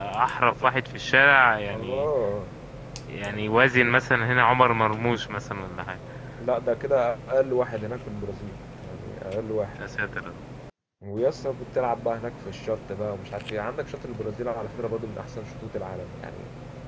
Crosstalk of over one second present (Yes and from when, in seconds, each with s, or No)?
No